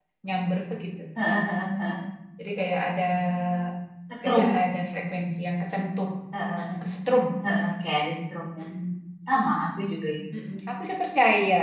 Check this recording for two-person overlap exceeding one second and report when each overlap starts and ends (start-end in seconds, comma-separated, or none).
none